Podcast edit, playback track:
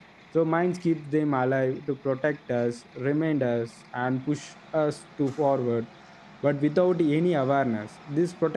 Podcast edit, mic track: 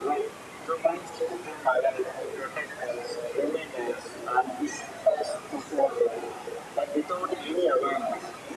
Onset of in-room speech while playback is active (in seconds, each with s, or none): none